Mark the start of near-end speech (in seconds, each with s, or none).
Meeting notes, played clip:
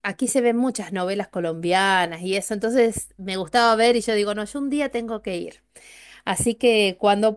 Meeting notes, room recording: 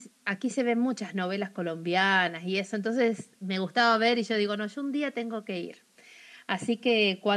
none